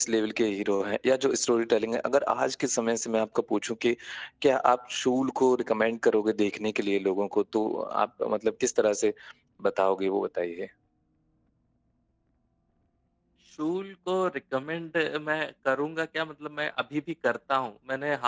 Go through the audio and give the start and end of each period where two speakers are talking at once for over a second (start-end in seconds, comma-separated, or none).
none